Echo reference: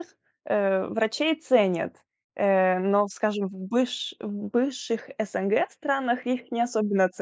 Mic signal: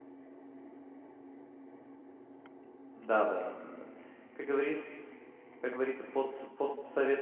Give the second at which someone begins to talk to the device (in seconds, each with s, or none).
3.0 s